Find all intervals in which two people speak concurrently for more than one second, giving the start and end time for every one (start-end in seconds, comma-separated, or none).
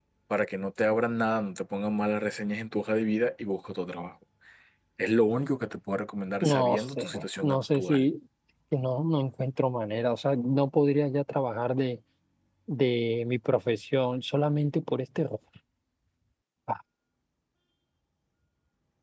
6.4-8.1